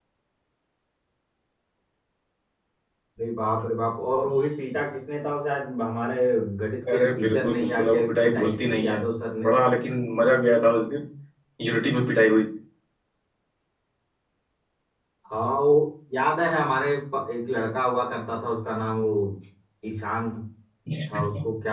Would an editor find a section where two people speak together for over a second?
Yes, from 6.9 s

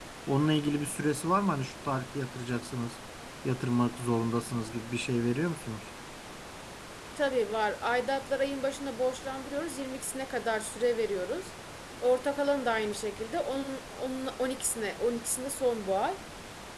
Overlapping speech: No

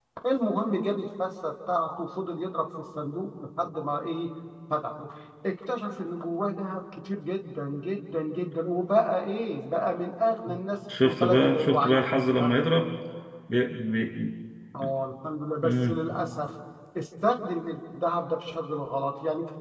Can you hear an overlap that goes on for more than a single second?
Yes, from 11.0 s

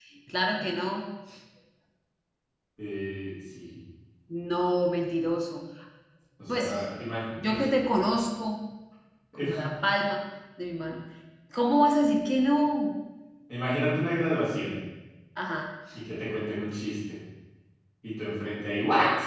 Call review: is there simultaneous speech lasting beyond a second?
No

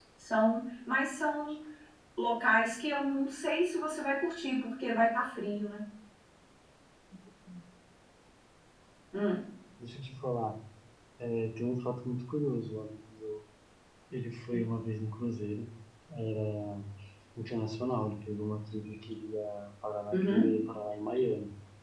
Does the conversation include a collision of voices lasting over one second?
No

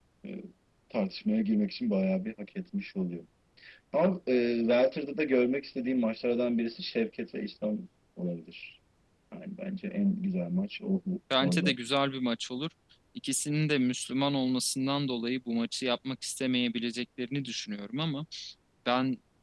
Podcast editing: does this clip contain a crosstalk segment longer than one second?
No

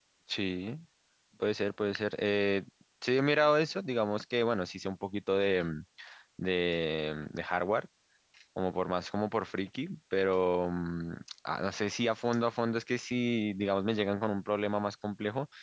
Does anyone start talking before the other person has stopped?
No

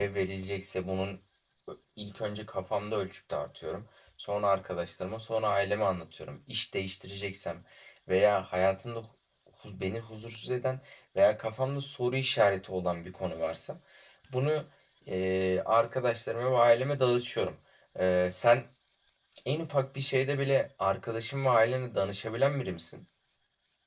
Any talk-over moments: No

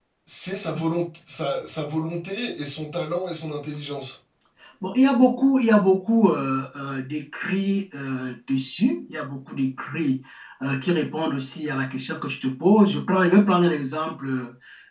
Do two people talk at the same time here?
No

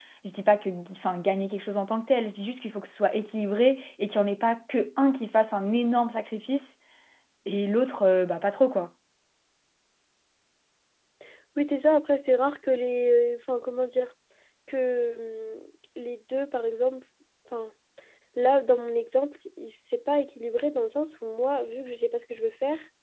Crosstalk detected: No

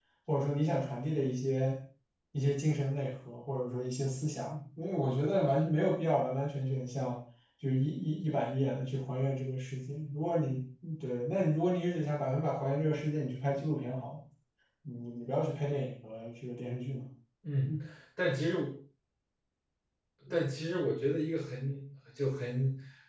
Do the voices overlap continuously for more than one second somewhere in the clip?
No

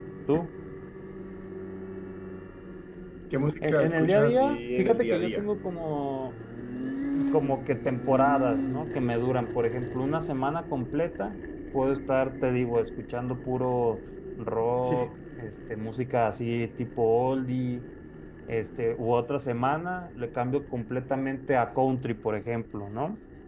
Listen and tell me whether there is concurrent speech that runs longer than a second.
Yes, from 3.7 s

